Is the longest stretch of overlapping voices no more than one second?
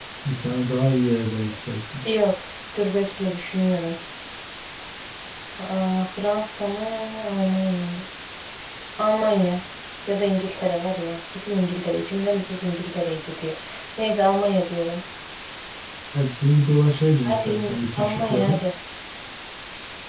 No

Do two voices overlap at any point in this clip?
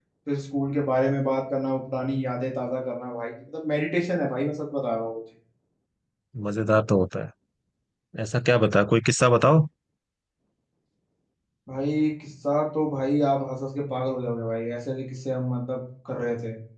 No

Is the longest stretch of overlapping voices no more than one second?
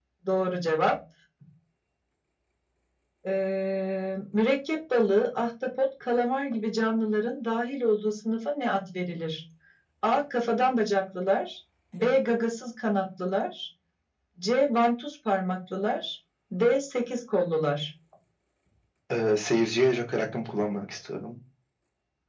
Yes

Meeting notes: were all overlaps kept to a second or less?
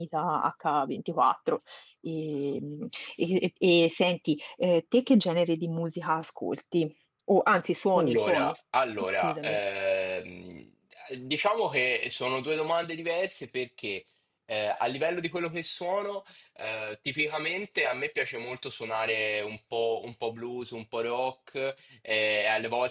Yes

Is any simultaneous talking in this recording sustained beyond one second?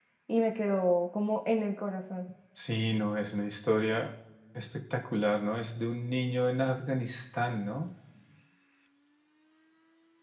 No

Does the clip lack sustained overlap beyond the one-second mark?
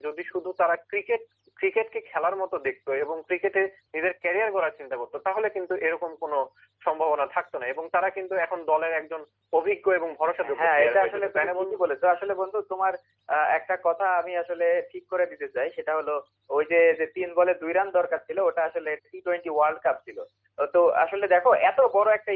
No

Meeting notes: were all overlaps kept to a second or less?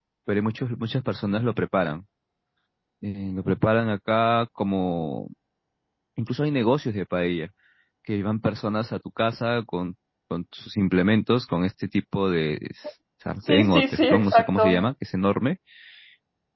No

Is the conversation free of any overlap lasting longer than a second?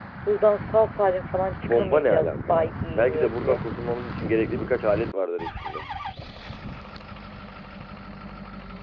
No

